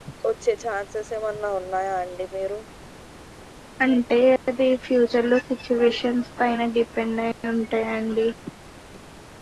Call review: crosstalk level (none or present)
none